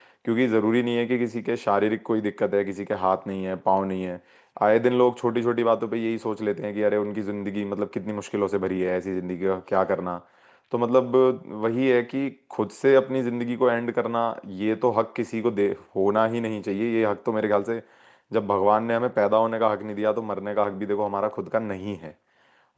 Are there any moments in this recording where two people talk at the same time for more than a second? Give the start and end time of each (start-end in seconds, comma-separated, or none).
none